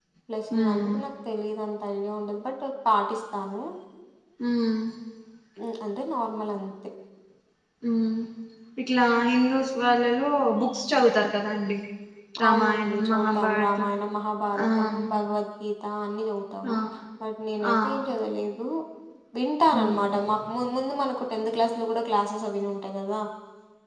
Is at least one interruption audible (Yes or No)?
Yes